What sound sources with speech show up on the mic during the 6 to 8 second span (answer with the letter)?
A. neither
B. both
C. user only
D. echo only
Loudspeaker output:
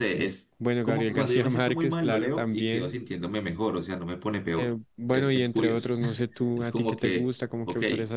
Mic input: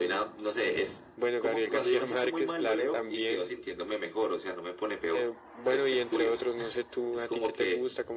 D